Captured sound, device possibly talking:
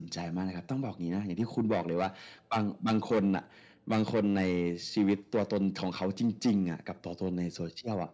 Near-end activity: none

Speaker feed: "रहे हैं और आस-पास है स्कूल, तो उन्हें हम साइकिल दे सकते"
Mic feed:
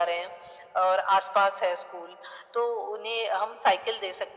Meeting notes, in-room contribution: none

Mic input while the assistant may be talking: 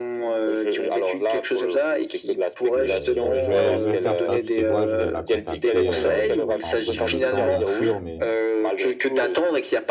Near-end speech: present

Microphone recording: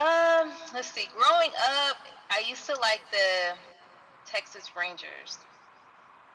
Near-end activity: none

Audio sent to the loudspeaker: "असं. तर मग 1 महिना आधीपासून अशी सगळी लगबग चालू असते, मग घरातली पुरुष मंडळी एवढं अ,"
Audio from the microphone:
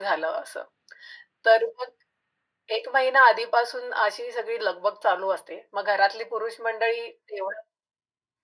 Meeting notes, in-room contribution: none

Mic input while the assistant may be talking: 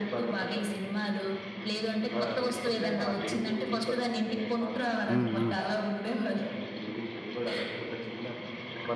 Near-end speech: present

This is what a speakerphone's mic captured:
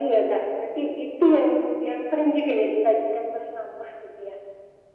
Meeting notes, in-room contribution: none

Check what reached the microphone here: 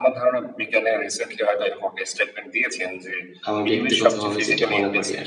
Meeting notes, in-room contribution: present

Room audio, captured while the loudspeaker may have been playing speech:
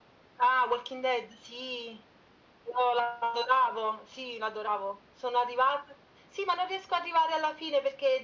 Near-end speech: none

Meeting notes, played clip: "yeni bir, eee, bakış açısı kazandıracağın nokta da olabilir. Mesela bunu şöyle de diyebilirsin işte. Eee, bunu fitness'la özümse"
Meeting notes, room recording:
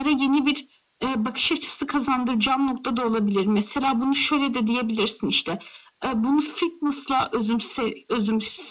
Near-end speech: none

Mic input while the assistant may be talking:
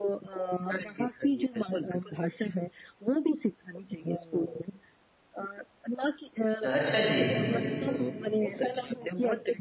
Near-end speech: present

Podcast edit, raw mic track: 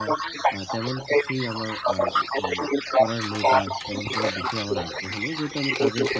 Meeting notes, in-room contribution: present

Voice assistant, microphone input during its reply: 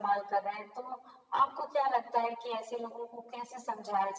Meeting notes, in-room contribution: none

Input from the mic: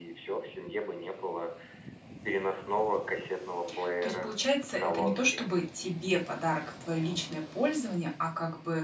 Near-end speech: present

